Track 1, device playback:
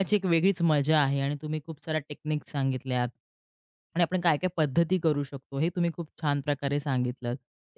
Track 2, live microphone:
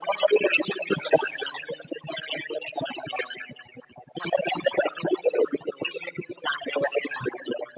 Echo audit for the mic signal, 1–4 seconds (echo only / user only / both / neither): echo only